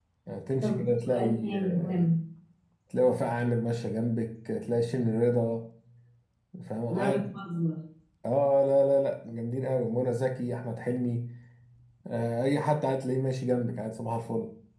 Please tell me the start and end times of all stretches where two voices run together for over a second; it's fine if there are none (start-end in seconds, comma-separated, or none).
0.6-2.1